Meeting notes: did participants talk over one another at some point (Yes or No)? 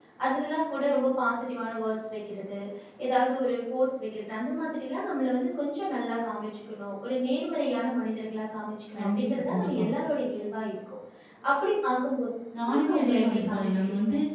Yes